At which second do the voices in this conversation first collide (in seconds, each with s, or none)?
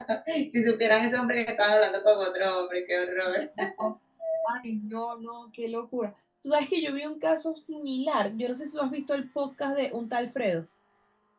none